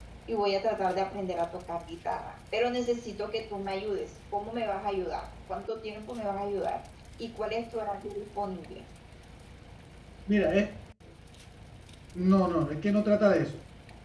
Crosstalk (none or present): none